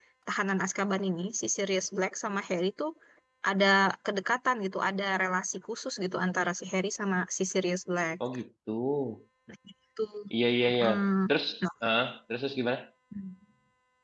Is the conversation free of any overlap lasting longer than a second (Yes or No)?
Yes